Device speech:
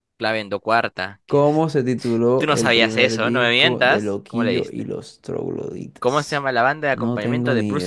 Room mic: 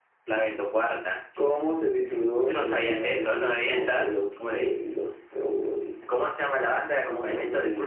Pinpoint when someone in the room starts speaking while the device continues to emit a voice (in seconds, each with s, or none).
none